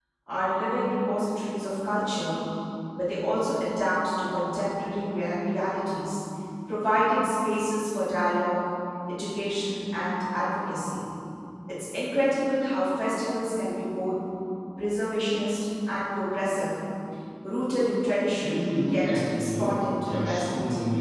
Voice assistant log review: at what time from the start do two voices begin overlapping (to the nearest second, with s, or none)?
18 s